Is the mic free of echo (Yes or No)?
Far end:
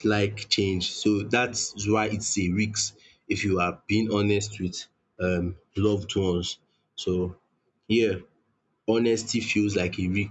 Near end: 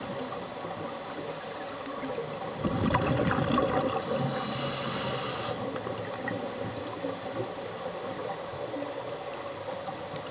Yes